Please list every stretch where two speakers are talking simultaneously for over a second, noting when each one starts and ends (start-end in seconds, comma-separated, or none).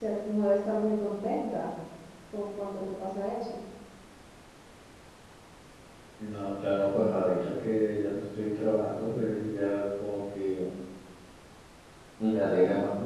none